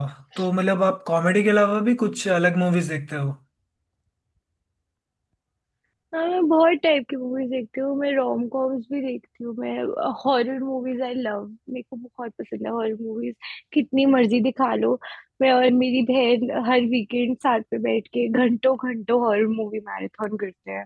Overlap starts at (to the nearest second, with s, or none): none